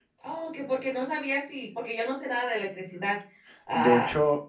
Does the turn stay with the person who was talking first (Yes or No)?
No